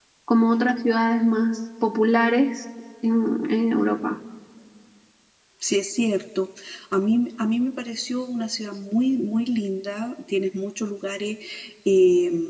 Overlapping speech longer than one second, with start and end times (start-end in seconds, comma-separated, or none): none